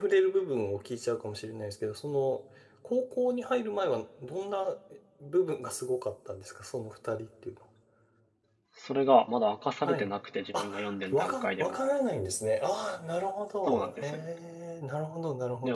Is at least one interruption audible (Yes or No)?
Yes